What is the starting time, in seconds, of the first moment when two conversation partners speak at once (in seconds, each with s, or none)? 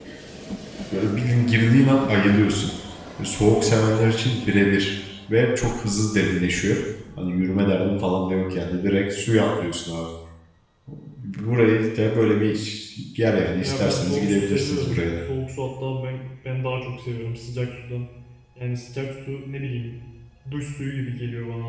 13.6 s